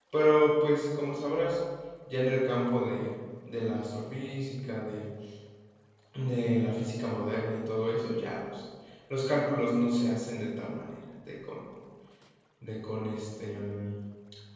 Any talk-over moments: No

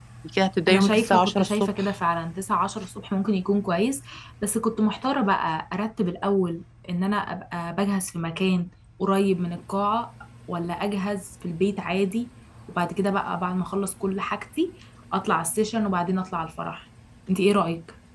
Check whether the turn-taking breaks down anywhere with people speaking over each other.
Yes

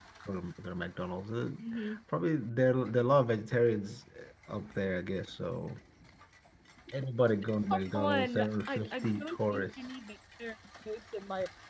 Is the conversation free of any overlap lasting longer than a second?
No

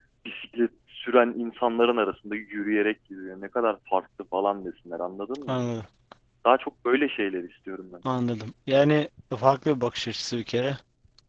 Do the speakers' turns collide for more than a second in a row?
No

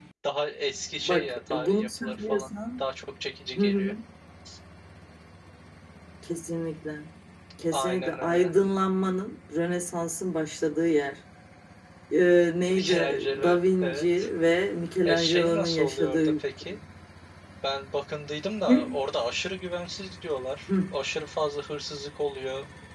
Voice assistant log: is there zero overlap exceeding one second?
No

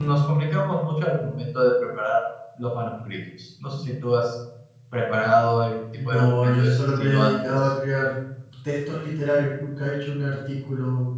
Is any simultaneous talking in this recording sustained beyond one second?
Yes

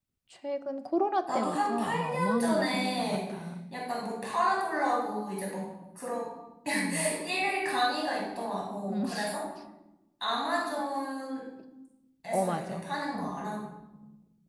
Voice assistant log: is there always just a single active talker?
No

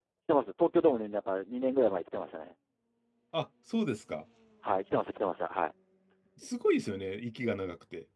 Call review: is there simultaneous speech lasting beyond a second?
No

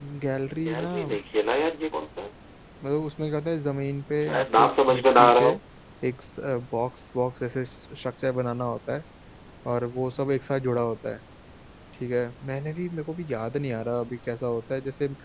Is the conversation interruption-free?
No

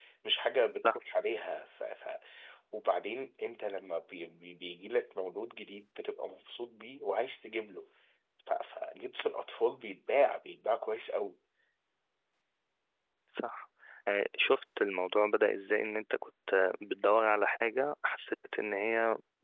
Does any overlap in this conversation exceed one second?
No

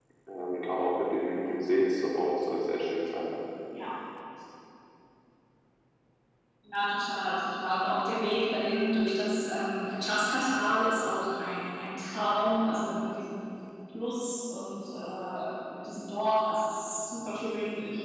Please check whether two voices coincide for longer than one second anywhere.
No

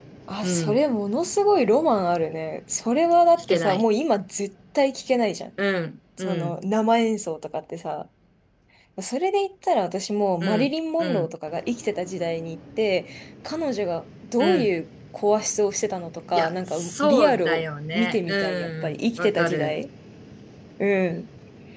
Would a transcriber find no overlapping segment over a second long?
No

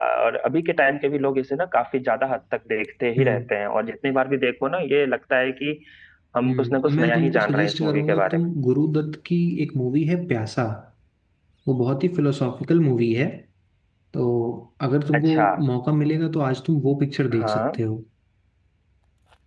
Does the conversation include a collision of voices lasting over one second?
Yes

